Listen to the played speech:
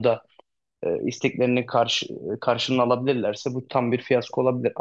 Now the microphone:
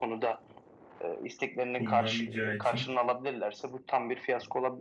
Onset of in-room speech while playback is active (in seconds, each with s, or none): 1.8 s